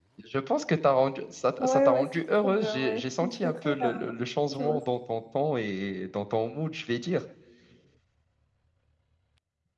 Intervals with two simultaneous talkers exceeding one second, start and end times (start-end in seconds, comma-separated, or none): 1.6-4.1